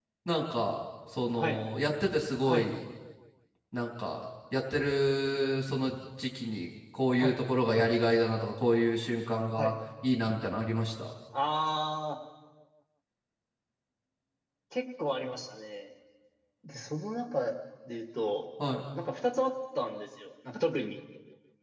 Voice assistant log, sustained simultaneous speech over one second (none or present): none